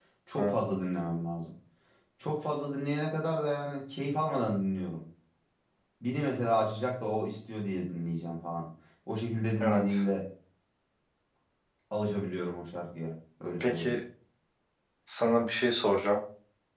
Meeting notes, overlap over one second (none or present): none